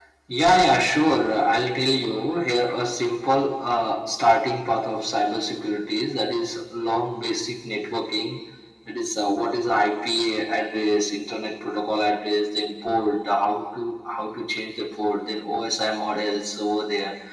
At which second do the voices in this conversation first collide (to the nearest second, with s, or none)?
none